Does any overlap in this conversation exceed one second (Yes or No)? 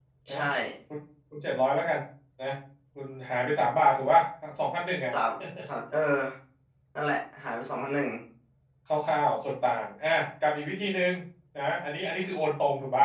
No